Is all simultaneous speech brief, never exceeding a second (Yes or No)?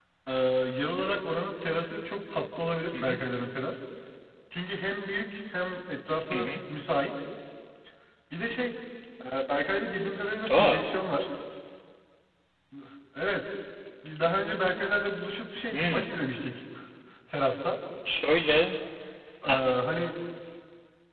Yes